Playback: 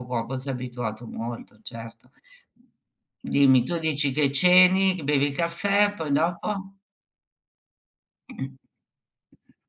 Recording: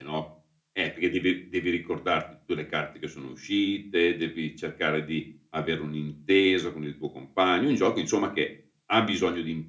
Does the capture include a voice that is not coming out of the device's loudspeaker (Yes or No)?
Yes